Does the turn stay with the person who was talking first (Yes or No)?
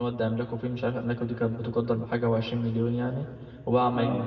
Yes